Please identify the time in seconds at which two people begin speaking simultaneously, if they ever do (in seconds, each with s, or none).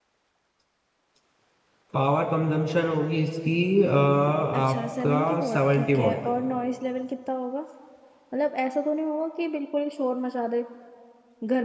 4.5 s